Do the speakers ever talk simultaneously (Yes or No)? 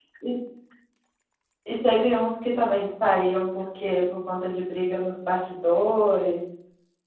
No